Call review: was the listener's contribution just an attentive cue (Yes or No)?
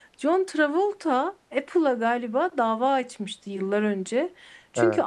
Yes